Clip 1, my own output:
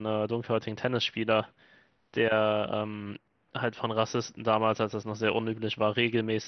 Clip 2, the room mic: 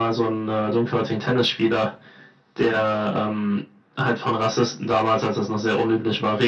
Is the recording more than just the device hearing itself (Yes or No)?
No